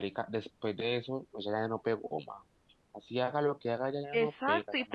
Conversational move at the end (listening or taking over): taking over